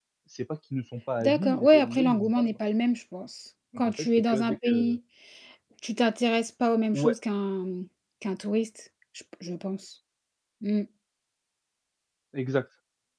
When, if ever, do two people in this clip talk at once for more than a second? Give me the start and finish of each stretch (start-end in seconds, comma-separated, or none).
1.2-2.5, 3.8-5.0